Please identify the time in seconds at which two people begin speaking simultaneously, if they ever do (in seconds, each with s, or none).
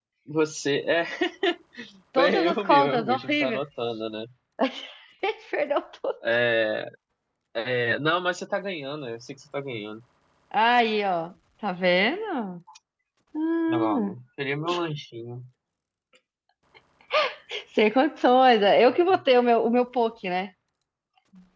2.2 s